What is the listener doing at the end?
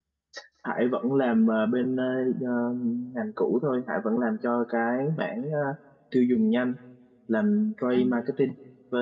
listening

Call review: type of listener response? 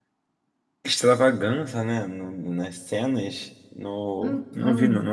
listening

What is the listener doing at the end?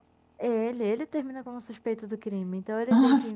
listening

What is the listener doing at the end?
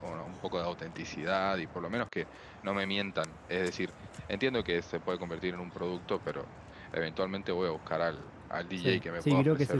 taking over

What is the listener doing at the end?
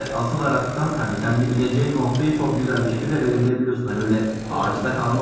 listening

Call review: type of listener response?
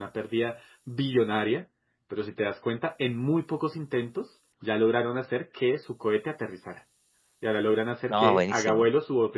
listening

